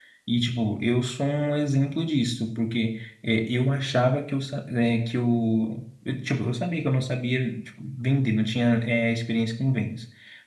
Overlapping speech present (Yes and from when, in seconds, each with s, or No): No